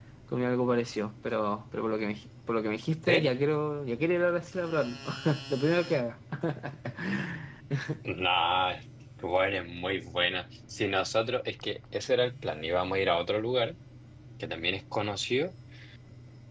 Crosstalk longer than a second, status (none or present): none